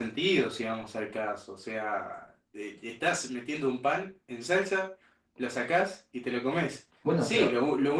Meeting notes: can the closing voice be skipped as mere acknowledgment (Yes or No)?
Yes